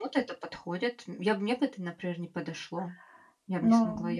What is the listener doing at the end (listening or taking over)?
taking over